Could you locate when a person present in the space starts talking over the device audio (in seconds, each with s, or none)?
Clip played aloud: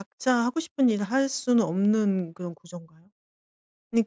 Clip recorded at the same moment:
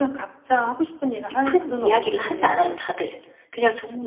1.3 s